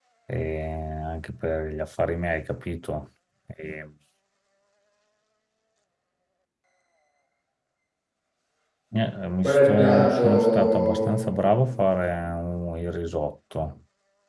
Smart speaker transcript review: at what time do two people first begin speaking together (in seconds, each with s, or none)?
9.4 s